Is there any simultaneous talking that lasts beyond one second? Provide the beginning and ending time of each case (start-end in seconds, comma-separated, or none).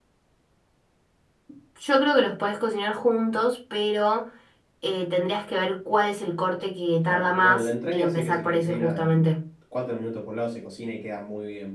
7.1-9.3